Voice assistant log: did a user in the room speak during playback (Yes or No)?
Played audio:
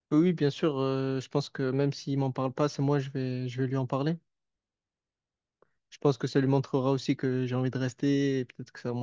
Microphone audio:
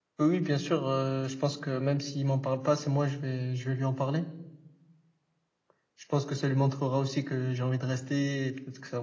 No